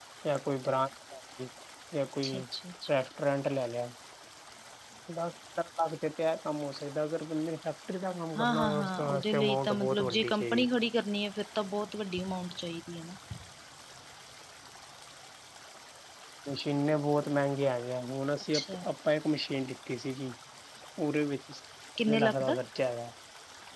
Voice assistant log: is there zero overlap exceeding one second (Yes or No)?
No